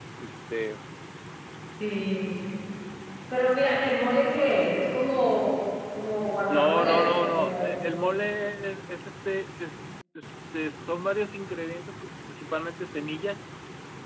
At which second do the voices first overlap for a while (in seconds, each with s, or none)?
6.5 s